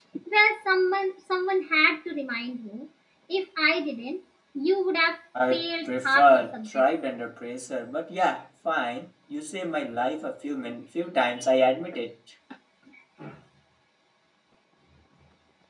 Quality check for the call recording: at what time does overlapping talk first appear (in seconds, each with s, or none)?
5.3 s